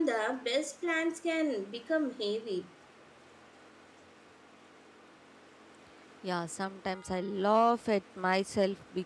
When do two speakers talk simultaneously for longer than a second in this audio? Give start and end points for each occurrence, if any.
none

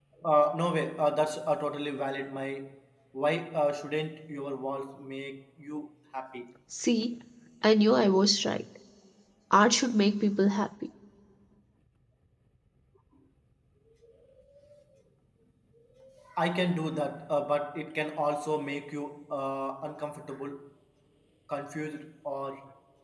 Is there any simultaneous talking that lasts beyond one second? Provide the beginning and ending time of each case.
none

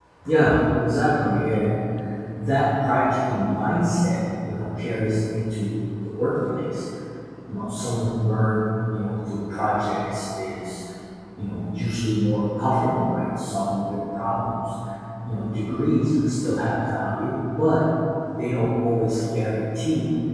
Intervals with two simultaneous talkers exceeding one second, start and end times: none

